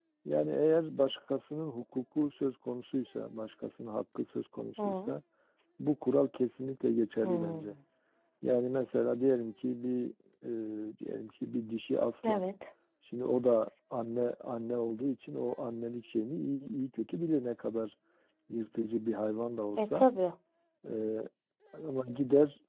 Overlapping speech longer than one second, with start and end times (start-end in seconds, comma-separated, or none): none